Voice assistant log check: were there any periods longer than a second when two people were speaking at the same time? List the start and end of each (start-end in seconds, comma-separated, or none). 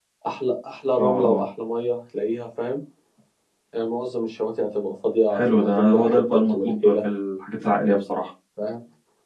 5.3-6.9